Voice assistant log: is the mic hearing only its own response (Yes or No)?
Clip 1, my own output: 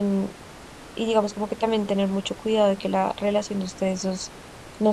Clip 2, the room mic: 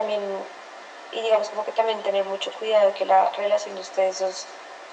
Yes